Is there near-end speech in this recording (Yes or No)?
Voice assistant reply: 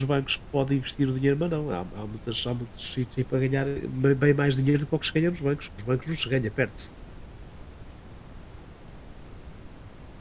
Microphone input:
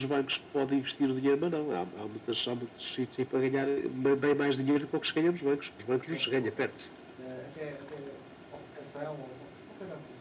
Yes